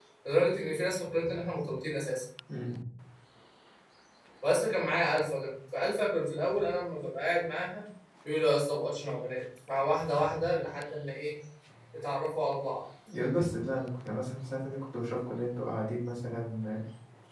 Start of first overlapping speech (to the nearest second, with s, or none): none